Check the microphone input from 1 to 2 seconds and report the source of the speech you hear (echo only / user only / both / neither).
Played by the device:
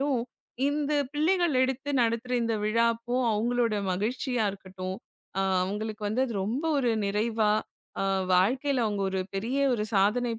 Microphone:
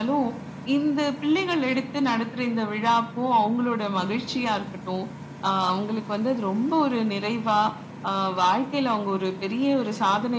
echo only